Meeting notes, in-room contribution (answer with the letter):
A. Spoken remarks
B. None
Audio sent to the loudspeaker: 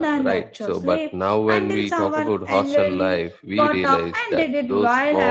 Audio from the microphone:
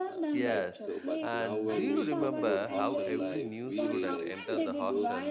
A